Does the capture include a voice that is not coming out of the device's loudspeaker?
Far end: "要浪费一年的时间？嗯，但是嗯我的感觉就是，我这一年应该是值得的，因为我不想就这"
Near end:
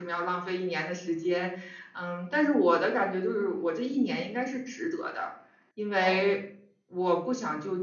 Yes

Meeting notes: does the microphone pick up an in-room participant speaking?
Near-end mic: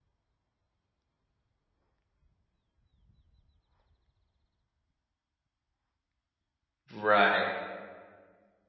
Yes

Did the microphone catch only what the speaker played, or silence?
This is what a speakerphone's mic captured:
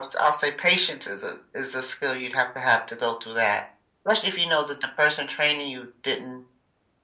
Yes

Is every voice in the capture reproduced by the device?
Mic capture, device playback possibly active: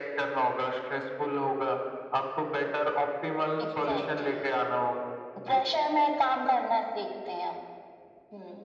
Yes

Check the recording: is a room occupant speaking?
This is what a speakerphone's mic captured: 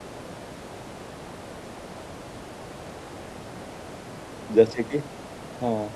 Yes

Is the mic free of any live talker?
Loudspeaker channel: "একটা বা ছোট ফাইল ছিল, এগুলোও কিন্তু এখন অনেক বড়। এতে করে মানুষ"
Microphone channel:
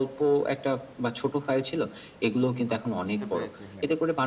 No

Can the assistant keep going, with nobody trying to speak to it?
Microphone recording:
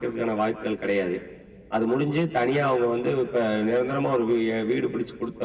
Yes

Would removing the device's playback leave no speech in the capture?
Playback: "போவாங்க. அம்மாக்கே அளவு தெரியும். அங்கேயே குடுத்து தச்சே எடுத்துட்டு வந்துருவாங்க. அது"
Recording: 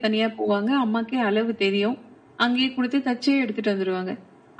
Yes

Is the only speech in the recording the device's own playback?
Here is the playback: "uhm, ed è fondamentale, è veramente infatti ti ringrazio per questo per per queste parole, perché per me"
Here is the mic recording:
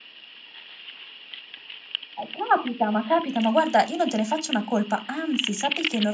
No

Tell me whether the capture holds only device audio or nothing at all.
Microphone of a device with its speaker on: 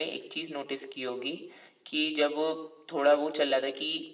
Yes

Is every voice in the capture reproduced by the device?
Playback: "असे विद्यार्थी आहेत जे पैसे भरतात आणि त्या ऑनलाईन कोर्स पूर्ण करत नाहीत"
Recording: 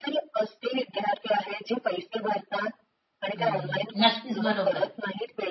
No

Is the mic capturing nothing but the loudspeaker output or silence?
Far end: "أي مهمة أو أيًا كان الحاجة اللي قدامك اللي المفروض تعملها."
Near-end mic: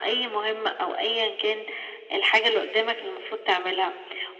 Yes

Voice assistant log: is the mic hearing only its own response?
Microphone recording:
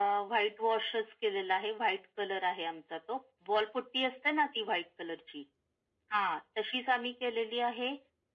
Yes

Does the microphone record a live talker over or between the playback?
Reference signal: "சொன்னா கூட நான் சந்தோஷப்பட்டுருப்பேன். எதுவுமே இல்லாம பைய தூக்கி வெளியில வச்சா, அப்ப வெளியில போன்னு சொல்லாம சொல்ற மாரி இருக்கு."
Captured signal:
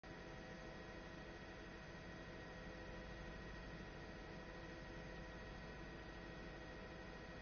No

